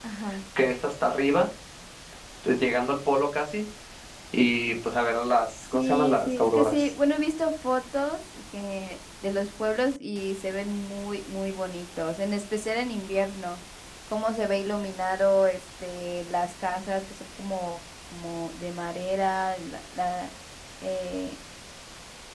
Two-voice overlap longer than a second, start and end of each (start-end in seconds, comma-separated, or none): 5.7-6.9